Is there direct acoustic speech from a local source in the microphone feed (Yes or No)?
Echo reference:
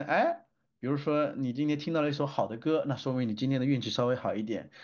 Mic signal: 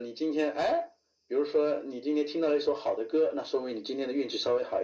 No